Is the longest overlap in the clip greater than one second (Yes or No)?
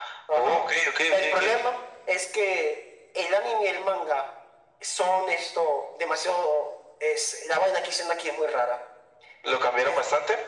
No